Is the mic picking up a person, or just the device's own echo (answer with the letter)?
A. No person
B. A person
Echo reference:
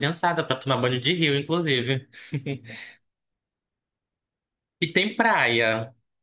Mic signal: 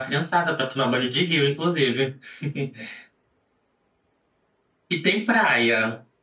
A